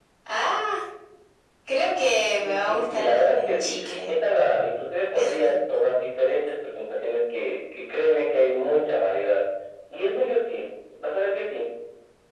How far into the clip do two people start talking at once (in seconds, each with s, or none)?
2.4 s